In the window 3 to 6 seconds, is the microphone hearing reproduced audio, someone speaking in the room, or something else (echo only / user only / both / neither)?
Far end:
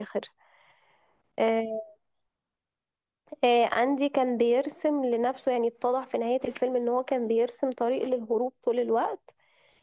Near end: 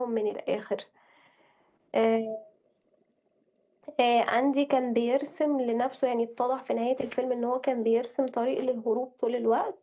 echo only